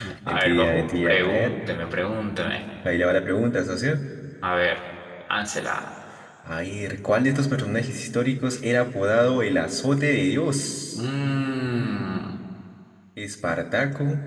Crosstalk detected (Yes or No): Yes